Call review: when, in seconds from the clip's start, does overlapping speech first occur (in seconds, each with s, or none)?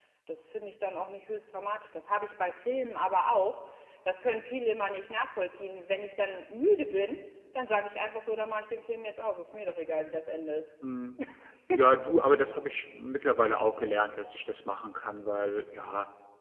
none